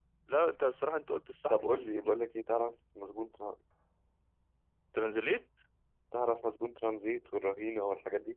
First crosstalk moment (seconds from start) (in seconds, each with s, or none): none